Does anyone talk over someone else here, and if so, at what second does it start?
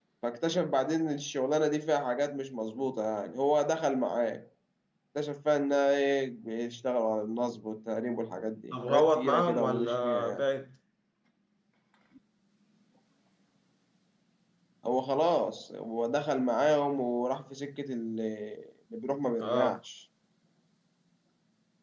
8.7 s

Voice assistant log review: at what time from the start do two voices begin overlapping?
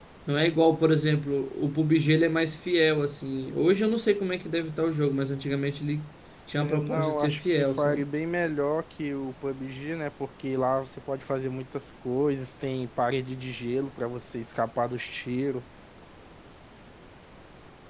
6.5 s

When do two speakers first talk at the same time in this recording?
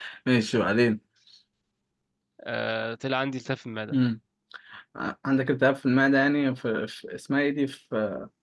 none

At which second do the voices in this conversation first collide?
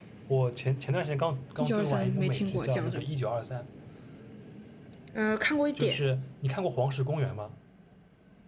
1.6 s

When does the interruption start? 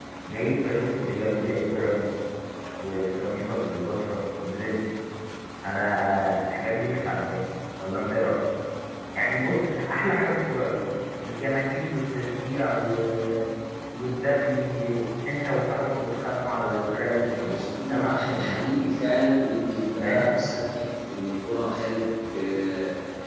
17.3 s

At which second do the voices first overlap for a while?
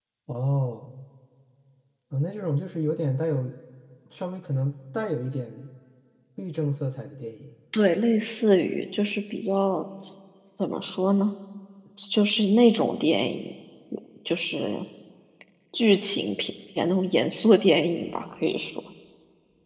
none

